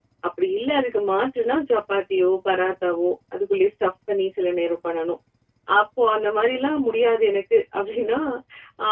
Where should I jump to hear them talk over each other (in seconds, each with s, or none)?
none